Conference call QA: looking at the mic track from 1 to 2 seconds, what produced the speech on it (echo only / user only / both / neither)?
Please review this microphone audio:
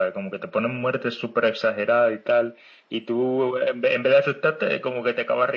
echo only